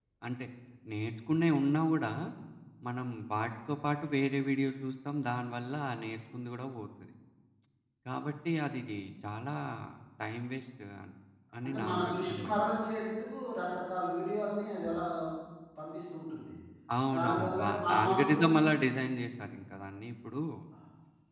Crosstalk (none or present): present